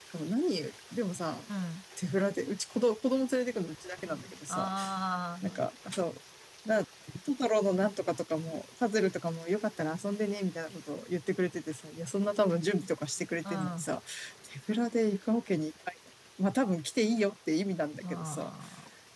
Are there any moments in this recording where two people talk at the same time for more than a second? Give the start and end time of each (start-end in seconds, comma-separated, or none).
none